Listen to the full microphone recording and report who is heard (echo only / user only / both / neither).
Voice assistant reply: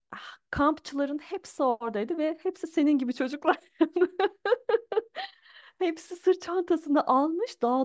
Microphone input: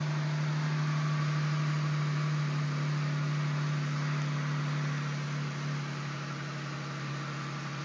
neither